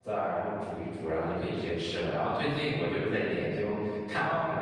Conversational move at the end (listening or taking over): taking over